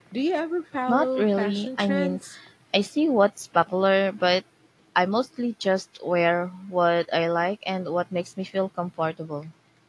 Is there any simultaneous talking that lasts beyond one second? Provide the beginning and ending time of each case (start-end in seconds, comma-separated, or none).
0.9-2.2